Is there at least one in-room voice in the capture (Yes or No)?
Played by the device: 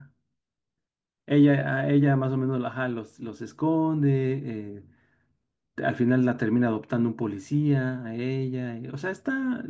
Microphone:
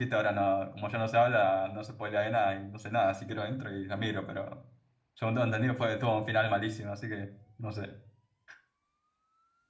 Yes